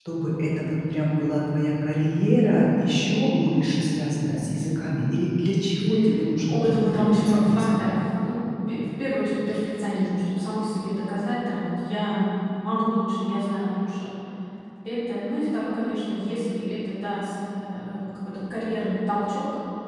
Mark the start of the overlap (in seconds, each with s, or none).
6.5 s